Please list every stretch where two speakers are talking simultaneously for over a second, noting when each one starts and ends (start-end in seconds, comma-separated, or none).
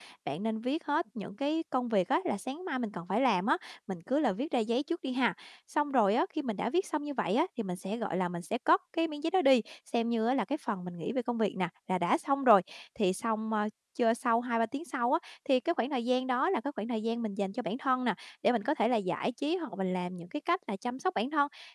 none